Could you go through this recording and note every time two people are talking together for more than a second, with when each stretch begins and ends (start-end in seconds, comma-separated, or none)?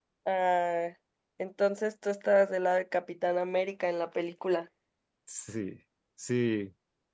none